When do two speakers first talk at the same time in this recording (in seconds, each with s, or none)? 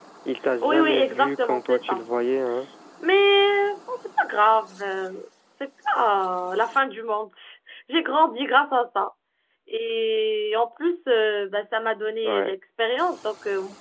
0.6 s